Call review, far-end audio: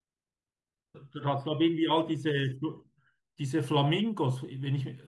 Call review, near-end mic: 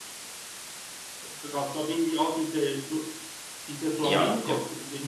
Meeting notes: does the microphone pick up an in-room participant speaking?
Yes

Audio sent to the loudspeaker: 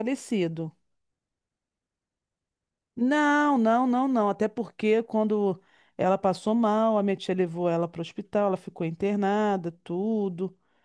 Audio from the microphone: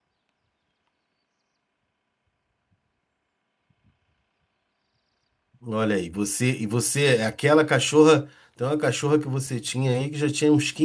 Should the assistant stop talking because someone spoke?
Yes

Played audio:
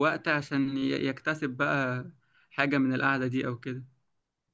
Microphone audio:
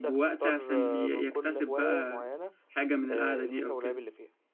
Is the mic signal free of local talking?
No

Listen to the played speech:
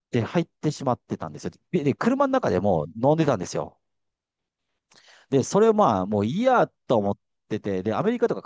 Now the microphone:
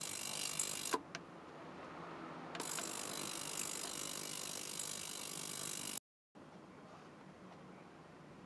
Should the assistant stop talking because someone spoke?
No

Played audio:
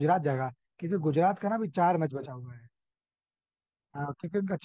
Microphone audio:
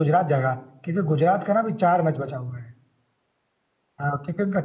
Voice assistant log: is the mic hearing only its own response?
Yes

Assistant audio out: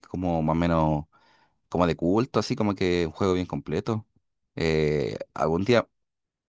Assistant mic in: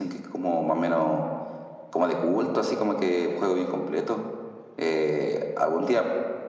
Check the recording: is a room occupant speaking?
No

